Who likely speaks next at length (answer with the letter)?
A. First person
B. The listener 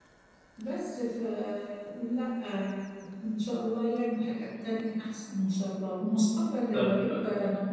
A